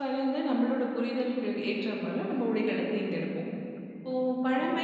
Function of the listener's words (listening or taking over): listening